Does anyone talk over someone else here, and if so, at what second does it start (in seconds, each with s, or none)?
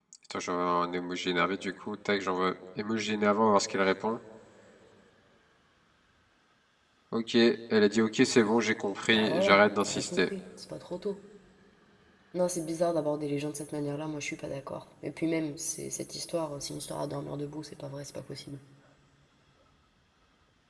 9.1 s